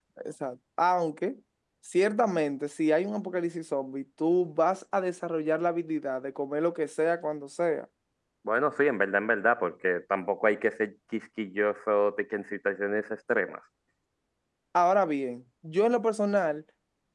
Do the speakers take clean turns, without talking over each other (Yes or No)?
Yes